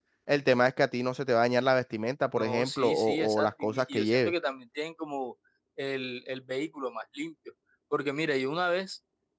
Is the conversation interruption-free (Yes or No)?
No